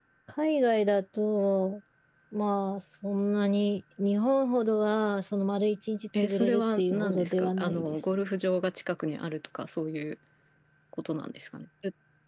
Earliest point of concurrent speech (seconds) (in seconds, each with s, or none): 6.1 s